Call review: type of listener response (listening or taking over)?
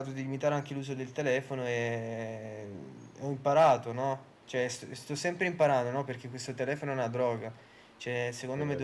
listening